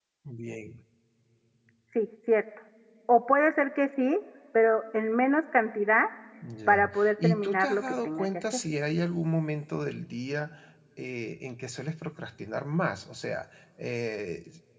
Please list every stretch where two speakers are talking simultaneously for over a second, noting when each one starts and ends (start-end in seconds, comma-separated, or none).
6.7-8.6